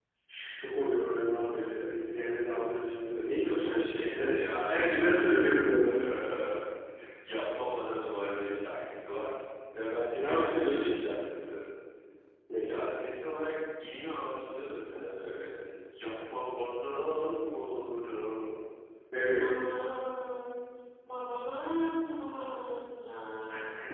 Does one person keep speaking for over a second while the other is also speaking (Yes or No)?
Yes